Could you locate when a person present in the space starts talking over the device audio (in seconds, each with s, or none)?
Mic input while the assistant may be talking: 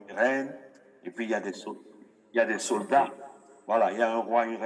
none